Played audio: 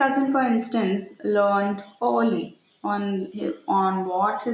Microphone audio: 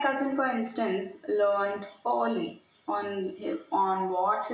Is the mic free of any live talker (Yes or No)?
Yes